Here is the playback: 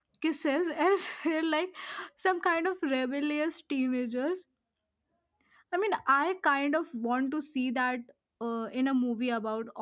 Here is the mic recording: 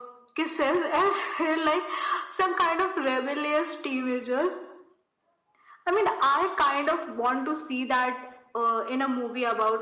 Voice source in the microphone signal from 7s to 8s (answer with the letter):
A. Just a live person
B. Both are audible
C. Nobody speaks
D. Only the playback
D